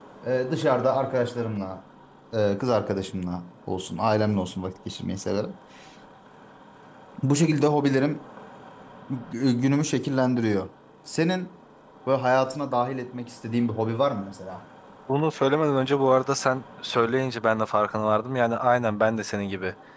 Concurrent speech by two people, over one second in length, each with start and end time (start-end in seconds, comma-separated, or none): none